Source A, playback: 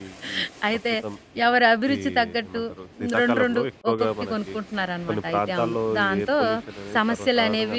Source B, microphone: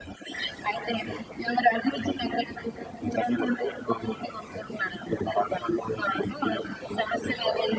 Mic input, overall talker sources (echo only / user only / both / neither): echo only